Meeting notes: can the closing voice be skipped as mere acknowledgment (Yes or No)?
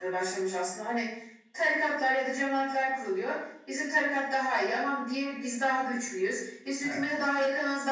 Yes